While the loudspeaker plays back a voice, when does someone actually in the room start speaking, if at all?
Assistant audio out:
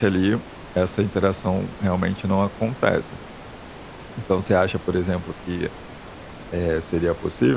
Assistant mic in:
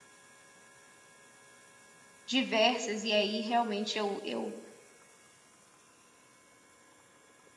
2 s

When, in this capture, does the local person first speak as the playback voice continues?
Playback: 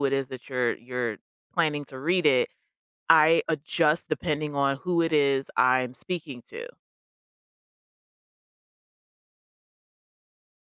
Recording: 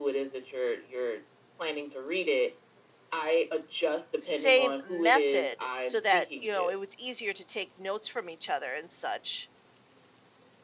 4 s

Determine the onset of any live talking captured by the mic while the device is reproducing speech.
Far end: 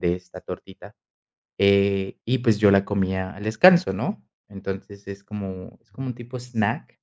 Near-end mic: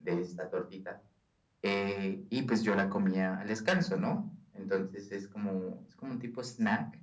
none

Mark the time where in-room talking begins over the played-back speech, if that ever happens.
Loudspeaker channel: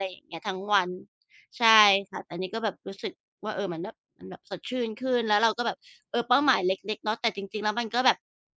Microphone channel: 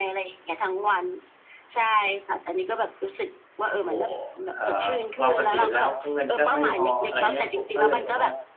4 s

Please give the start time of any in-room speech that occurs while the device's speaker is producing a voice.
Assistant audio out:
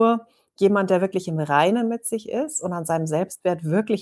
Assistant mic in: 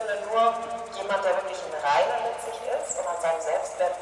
none

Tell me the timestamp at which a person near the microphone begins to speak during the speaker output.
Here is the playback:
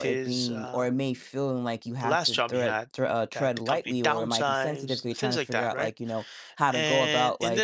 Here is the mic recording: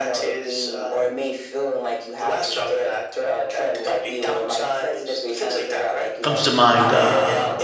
6 s

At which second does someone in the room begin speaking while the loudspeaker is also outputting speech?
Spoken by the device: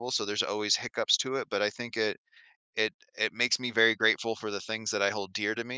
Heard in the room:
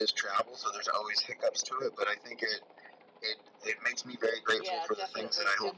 5 s

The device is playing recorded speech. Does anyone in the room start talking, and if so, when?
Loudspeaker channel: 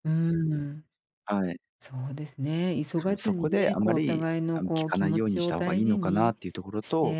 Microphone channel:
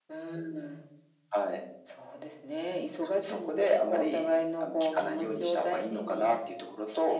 none

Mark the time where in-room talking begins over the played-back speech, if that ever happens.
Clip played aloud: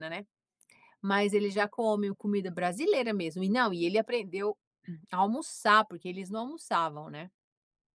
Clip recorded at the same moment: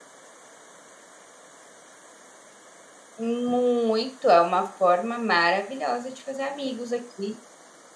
3 s

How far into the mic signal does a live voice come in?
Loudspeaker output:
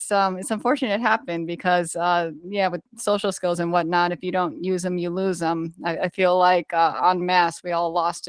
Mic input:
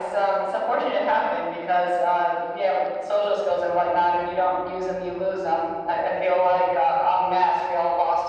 none

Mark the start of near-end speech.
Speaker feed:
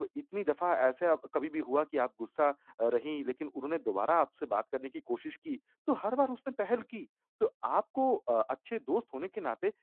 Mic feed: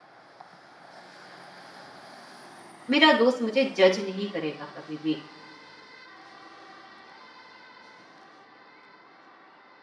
3 s

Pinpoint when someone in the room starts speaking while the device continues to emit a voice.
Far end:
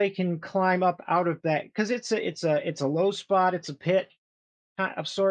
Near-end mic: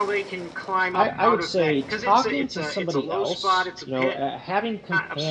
1 s

